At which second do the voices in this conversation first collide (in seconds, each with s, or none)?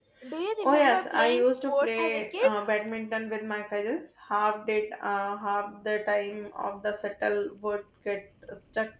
0.6 s